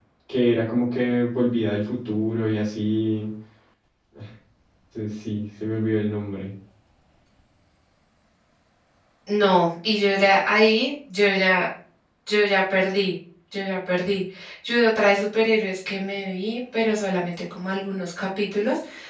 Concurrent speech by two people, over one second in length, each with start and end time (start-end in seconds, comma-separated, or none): none